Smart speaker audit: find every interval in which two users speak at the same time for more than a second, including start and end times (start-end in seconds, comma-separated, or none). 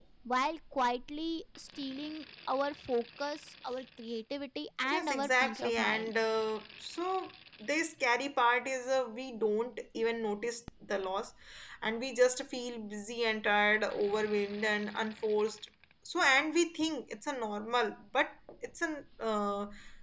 4.9-6.1